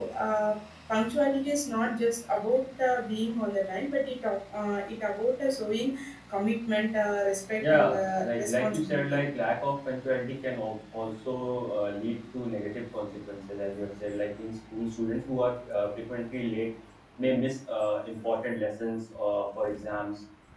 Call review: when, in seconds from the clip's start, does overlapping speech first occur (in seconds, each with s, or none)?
7.6 s